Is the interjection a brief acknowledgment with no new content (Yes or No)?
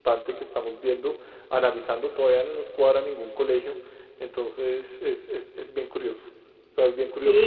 No